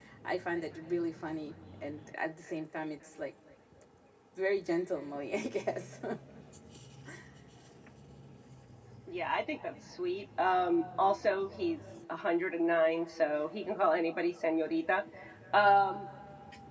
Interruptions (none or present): none